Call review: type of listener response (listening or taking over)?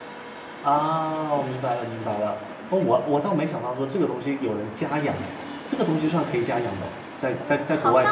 taking over